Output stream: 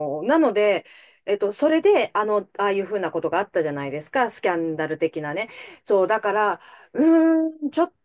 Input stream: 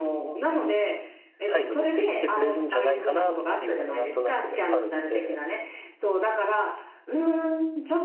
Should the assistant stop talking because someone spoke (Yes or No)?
Yes